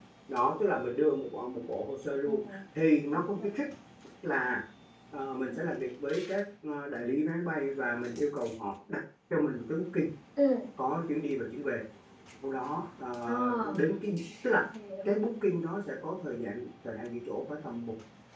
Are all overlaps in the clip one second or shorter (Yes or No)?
Yes